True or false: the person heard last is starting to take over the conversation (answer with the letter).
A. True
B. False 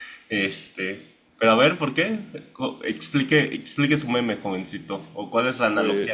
B